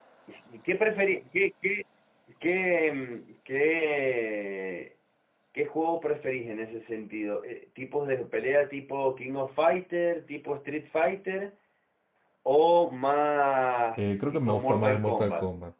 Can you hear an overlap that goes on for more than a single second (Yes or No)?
Yes